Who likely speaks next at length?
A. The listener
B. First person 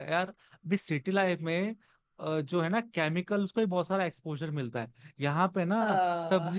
B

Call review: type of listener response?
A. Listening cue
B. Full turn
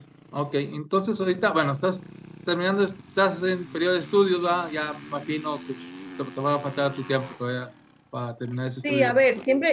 B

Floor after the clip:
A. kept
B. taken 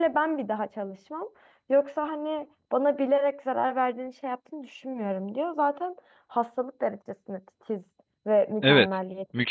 B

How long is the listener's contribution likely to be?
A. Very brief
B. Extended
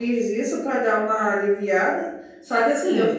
A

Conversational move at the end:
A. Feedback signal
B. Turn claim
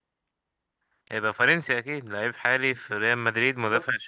A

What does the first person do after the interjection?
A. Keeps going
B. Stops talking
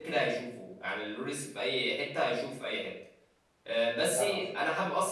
A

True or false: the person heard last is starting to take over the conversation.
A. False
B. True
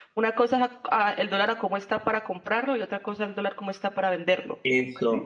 B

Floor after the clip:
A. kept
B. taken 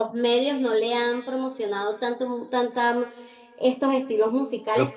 A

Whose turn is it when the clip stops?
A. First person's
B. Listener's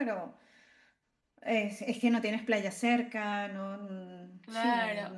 B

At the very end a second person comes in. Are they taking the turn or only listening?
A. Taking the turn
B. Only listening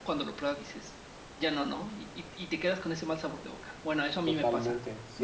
A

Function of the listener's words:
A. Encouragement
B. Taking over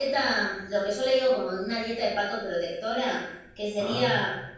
A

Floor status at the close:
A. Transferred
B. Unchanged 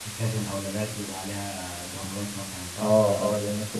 A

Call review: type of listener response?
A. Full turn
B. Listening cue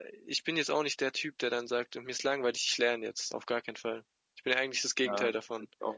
A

